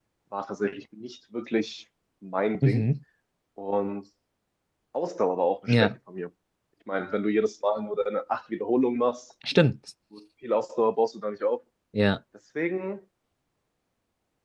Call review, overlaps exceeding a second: none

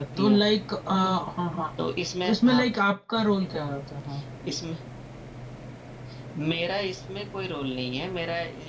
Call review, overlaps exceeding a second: none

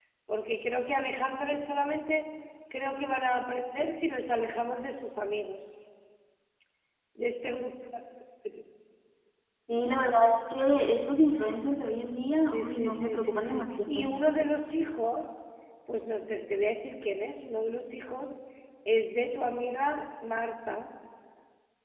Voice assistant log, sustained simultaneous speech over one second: present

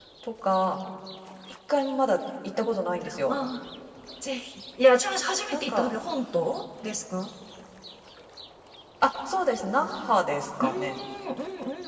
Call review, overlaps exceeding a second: none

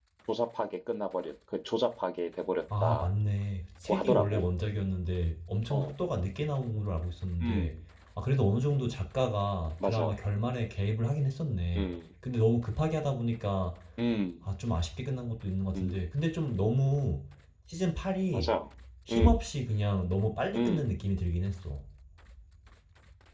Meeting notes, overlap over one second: none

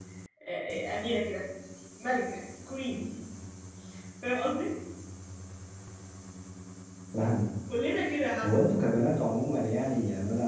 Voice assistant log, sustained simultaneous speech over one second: none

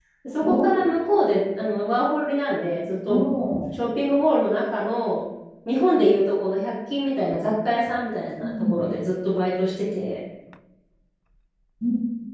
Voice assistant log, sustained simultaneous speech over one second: none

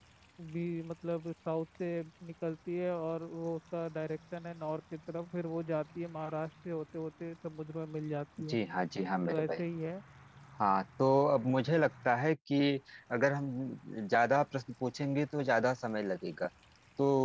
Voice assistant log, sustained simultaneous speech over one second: none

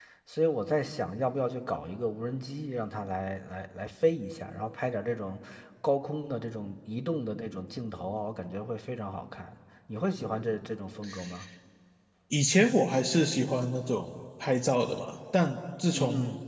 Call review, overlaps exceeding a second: none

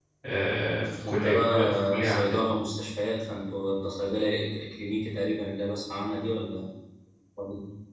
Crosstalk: present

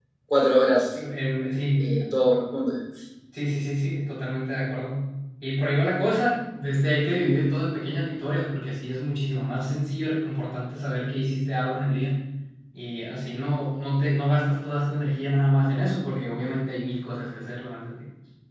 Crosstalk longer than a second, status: none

